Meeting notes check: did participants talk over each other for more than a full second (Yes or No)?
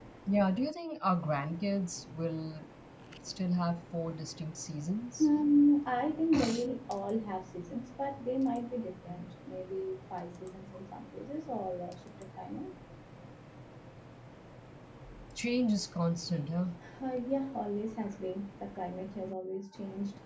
No